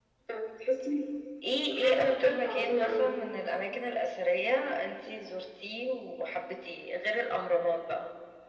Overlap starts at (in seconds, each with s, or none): 1.7 s